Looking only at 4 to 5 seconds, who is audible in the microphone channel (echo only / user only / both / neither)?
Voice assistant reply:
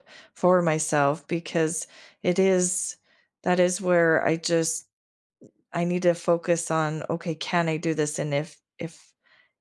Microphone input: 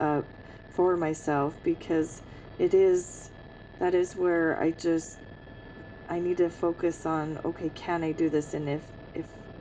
echo only